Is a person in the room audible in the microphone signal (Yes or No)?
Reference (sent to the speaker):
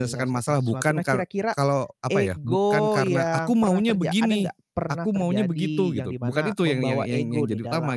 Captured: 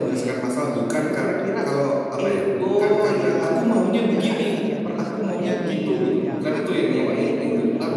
Yes